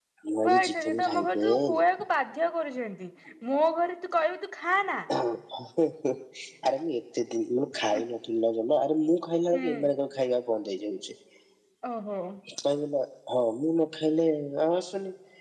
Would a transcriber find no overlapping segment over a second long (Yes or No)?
No